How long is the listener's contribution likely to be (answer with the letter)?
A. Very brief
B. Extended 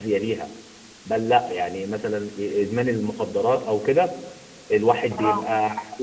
A